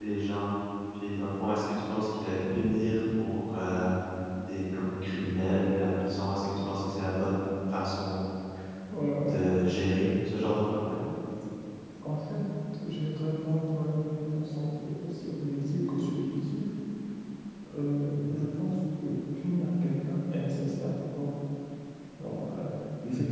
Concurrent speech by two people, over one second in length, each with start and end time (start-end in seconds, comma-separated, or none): none